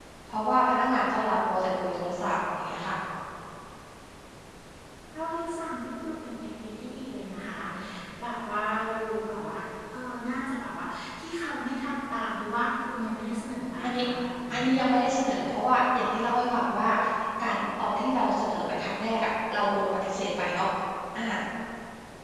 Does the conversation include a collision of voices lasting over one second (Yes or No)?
No